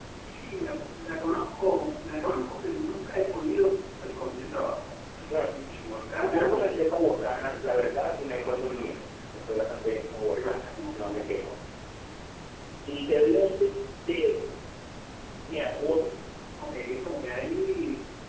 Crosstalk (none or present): present